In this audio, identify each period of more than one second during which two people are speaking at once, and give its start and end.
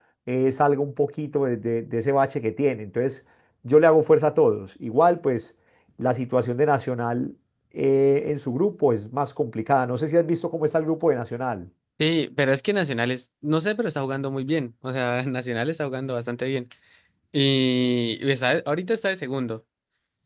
none

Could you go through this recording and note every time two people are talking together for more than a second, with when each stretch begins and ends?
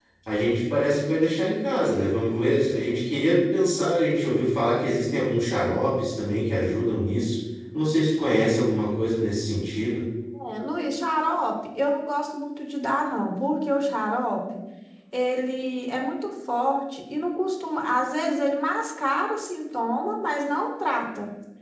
none

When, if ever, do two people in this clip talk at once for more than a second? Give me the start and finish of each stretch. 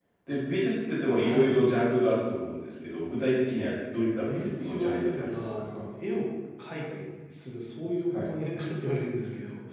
4.2-5.8

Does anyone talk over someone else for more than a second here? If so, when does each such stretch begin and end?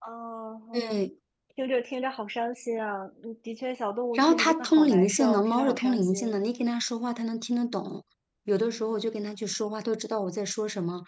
4.1-6.2

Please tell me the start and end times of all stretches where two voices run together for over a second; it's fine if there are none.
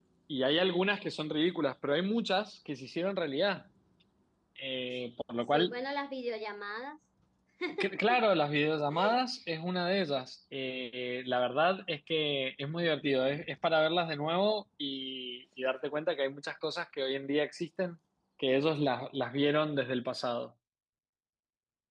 none

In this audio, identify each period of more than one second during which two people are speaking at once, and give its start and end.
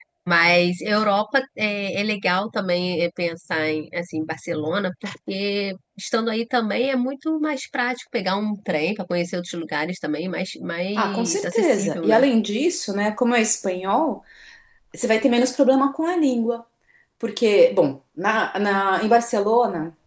11.0-12.2

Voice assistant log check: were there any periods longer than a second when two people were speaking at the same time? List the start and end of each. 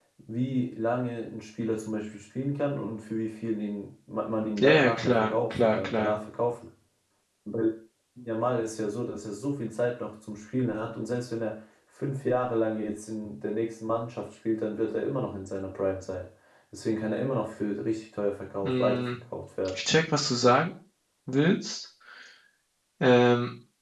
4.6-6.2

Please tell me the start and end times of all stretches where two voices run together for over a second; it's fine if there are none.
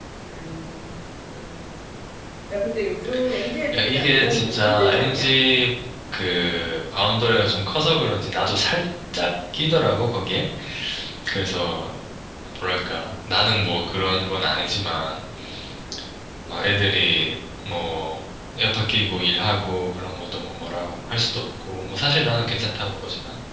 3.7-5.3

